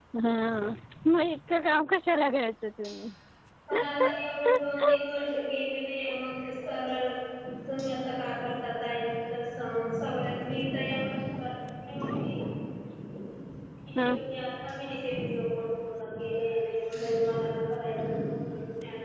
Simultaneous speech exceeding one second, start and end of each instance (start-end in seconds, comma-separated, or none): none